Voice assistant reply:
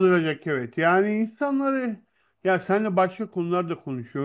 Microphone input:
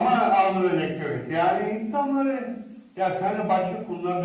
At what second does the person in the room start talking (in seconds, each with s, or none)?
none